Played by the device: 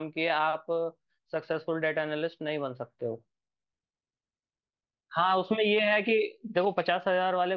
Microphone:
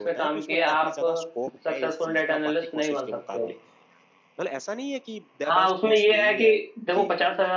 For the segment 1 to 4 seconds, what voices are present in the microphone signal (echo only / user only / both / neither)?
both